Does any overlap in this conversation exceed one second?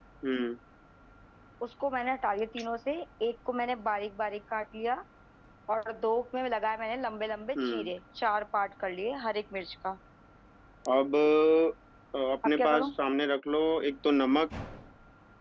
No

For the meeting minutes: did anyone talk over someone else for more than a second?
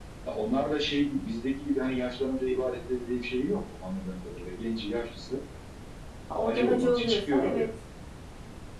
Yes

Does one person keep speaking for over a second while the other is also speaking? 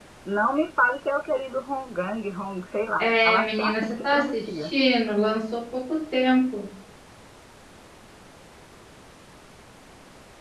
Yes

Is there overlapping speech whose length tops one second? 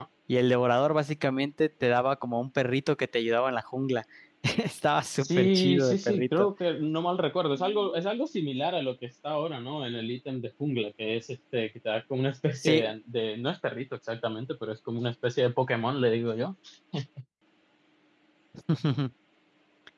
Yes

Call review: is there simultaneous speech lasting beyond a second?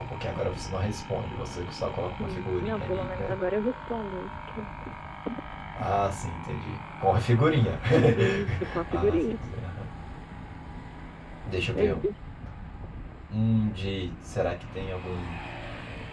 Yes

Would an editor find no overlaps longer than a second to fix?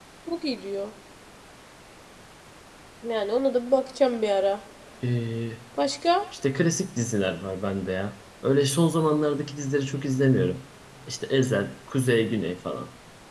Yes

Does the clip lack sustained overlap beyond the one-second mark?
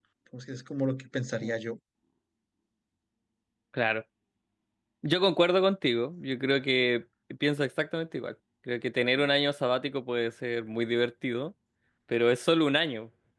Yes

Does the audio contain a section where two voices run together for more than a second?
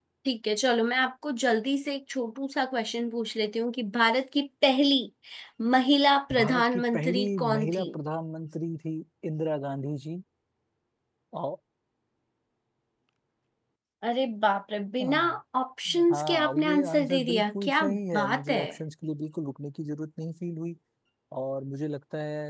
Yes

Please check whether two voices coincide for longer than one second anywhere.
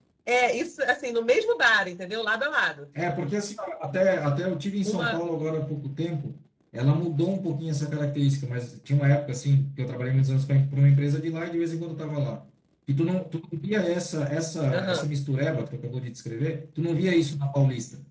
No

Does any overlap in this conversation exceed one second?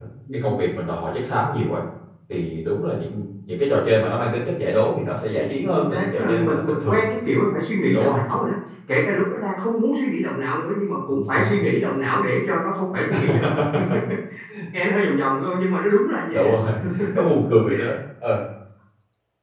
Yes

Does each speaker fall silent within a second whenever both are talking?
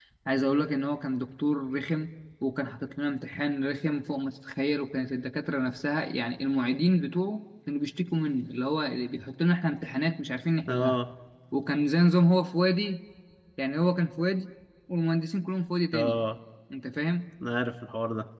Yes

